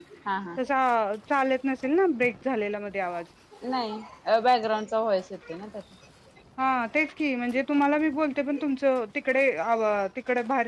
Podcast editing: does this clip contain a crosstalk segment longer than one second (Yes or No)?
No